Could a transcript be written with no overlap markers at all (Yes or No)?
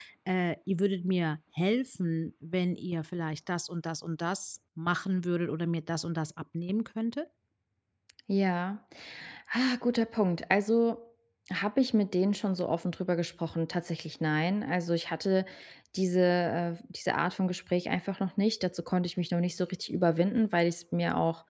Yes